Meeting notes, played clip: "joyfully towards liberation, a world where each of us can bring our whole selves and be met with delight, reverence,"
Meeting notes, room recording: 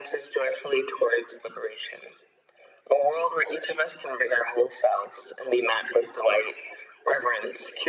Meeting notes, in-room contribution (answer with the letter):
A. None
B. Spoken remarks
A